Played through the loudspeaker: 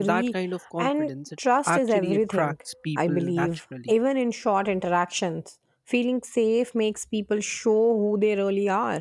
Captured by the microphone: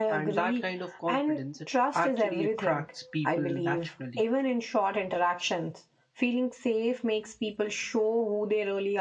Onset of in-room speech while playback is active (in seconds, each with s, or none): none